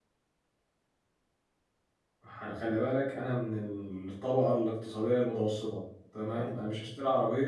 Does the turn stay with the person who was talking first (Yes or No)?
Yes